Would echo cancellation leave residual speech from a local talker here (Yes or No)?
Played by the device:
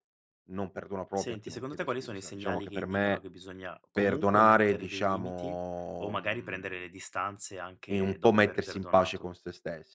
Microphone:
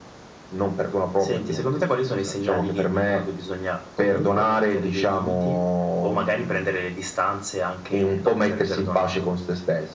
No